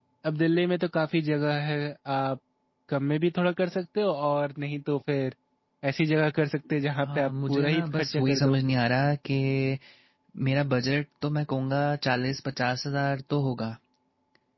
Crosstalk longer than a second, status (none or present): present